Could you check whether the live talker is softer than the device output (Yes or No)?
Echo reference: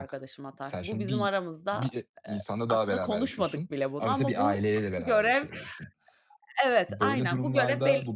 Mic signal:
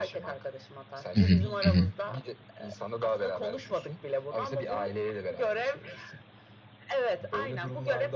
No